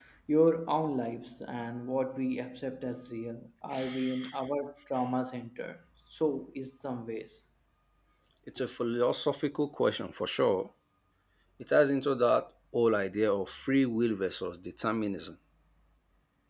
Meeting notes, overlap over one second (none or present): none